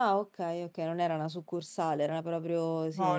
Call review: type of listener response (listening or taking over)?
taking over